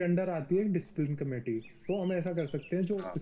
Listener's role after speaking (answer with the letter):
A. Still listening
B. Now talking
A